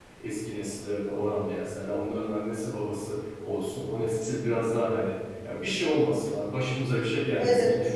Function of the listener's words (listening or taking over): listening